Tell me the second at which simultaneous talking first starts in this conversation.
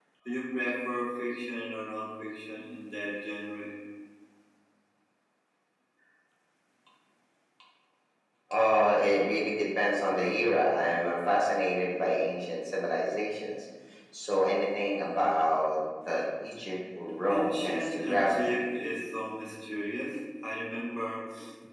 17.1 s

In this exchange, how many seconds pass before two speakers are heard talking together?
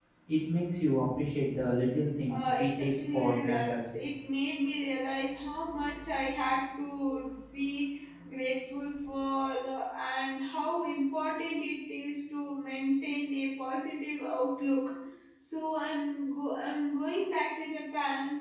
2.3 s

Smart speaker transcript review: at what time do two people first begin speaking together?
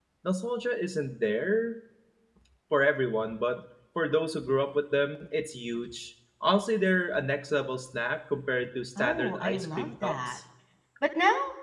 9.0 s

